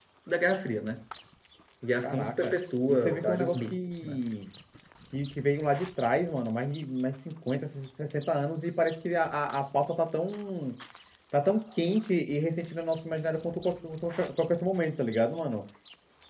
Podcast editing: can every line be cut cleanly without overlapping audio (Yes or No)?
No